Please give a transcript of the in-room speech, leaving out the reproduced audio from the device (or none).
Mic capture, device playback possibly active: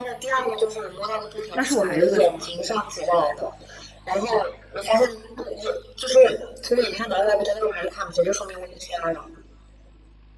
那是我孩子的手吗？